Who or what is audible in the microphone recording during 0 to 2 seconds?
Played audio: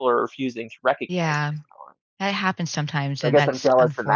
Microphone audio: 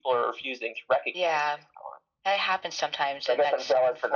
echo only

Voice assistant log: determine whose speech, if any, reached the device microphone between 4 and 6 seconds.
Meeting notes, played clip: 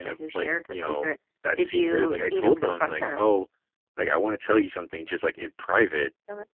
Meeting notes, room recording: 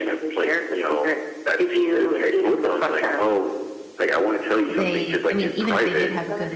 both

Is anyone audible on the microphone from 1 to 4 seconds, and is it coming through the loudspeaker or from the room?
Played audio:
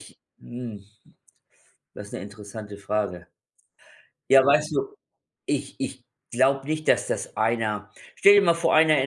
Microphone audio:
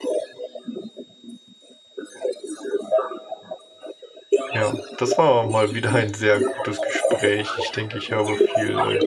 echo only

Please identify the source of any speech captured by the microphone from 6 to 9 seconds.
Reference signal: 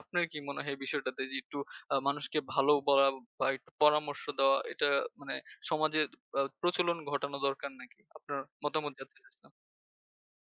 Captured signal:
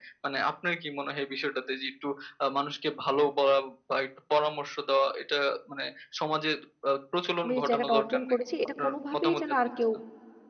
both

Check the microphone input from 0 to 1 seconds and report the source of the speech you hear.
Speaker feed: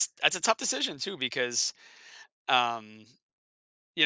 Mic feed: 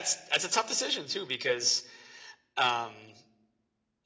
echo only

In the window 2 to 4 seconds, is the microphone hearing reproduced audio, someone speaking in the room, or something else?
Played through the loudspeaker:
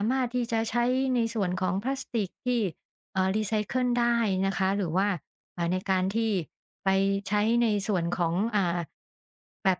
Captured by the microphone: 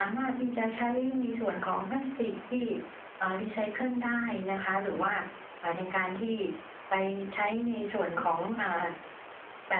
echo only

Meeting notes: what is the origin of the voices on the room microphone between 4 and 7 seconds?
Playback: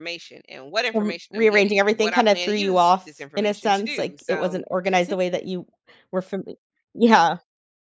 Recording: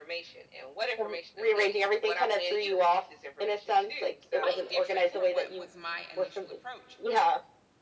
both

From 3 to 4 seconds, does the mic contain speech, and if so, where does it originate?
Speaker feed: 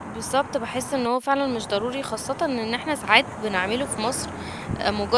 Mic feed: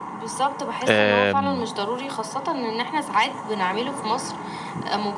echo only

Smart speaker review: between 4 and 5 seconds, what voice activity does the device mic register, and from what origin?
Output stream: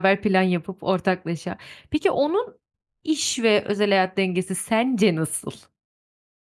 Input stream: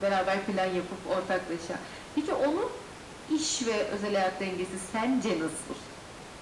echo only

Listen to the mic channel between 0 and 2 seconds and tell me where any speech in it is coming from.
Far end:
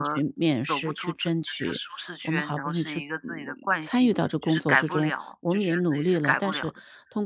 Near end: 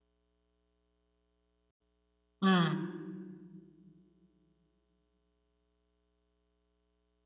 neither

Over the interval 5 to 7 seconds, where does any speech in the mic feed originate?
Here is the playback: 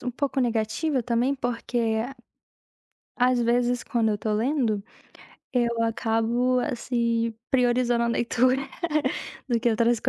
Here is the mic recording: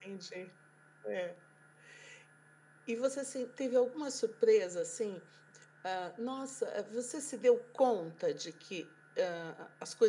user only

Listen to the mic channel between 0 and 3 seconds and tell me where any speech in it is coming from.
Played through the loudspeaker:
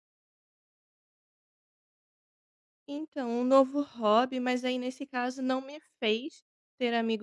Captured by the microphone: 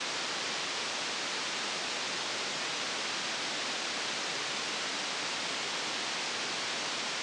neither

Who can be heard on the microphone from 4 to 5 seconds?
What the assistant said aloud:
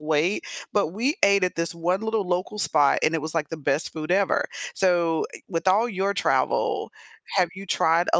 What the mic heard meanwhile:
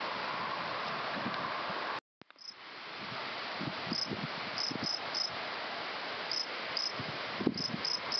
neither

